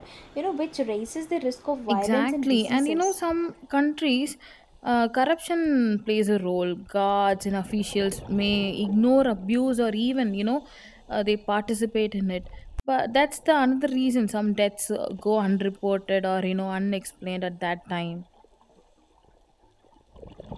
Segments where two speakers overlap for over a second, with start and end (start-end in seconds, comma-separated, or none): 1.9-3.2